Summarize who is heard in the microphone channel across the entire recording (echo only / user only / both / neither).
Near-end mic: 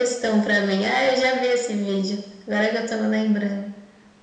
echo only